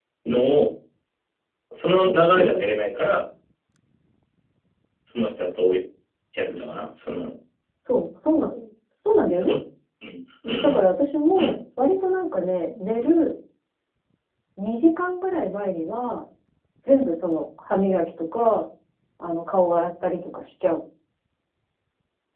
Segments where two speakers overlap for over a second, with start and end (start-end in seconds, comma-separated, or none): none